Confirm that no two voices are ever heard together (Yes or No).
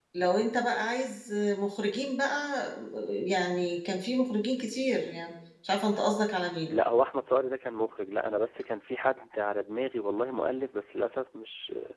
Yes